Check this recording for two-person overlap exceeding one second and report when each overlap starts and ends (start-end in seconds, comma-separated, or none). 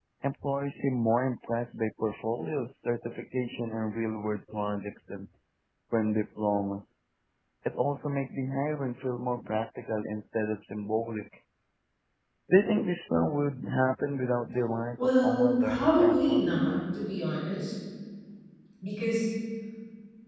15.0-16.5